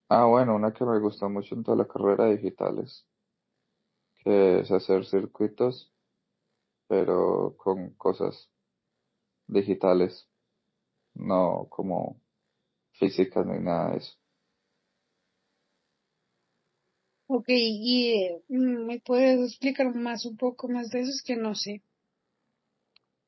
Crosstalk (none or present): none